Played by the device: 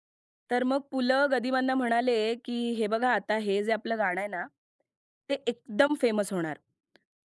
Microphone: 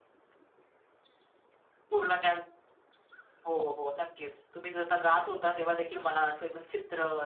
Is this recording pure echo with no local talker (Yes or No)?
No